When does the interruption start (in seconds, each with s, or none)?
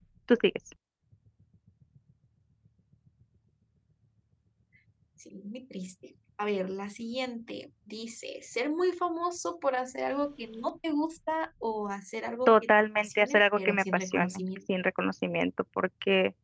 12.5 s